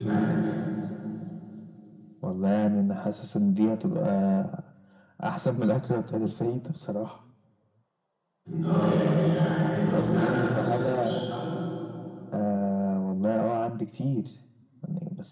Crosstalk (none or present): present